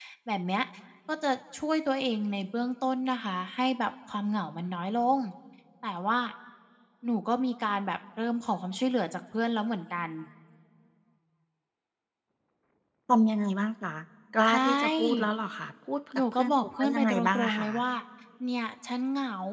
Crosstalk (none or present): present